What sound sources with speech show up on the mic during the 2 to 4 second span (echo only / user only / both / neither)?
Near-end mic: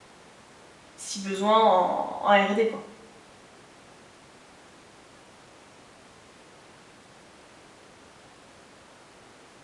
user only